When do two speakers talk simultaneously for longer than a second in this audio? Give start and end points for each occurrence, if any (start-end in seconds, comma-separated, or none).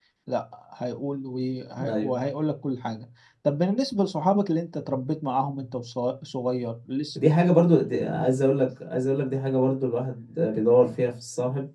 none